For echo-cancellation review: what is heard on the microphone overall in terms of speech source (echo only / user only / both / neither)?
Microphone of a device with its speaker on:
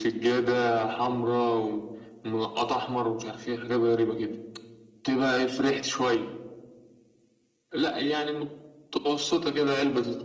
echo only